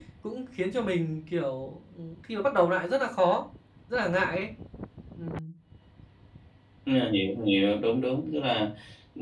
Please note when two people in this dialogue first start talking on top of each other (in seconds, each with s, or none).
none